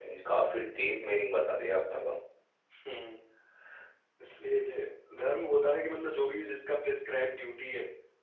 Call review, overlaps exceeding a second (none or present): none